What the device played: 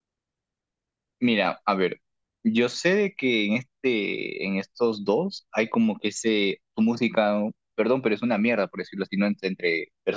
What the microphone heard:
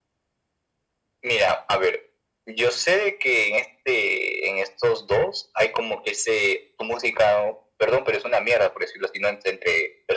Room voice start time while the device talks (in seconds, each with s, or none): none